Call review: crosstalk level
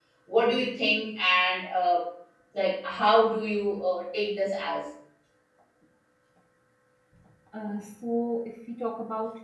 none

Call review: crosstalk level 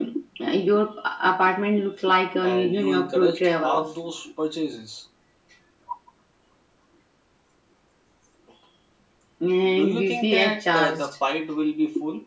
present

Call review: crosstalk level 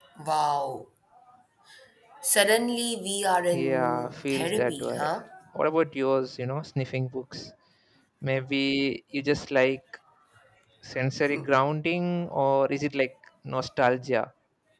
present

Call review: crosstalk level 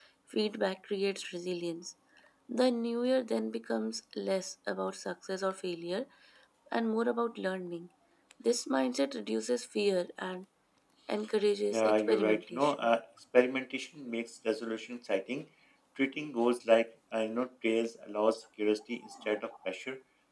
present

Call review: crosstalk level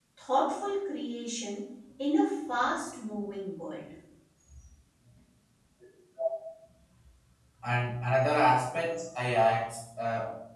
none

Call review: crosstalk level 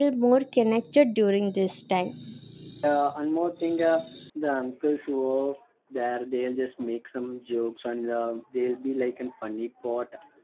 none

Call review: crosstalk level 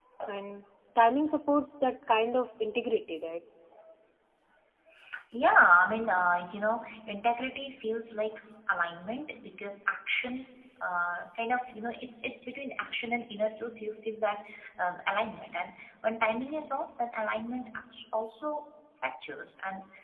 none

